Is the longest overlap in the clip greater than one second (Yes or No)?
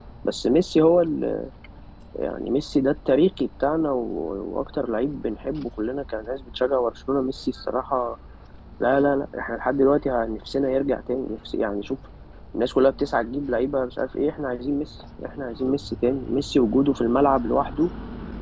No